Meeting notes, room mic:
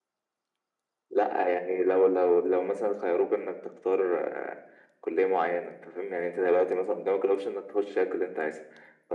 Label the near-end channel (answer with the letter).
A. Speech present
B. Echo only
B